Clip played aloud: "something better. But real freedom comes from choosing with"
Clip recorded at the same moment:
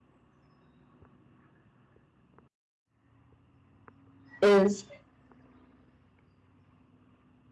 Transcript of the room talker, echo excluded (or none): is